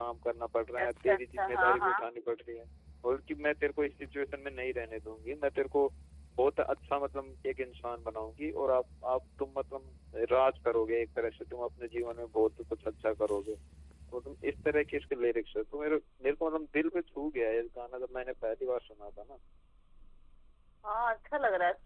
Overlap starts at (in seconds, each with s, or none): 0.8 s